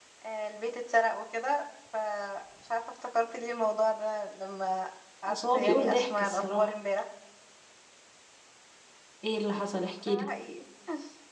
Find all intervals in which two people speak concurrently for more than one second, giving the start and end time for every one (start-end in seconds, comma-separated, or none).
5.3-6.7